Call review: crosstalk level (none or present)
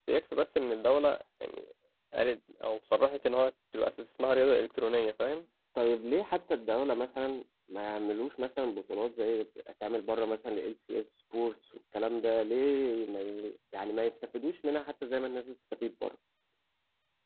none